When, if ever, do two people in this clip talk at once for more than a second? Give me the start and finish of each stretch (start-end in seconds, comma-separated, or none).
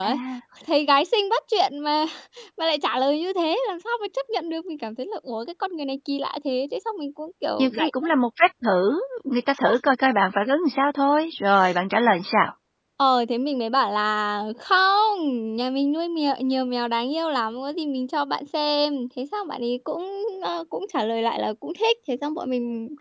none